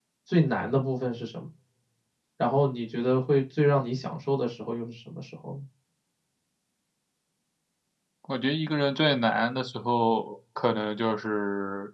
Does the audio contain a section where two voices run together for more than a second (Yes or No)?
No